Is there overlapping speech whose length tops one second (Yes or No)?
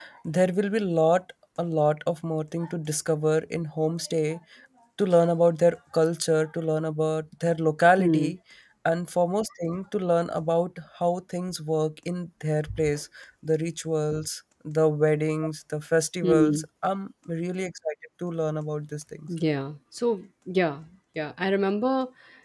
No